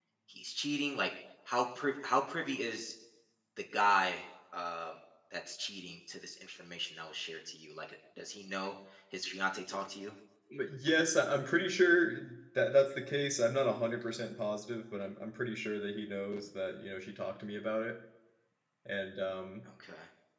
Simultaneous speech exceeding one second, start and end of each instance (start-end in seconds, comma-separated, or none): none